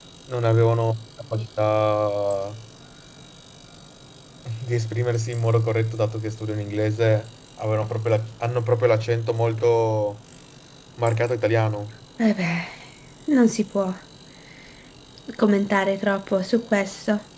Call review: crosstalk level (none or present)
none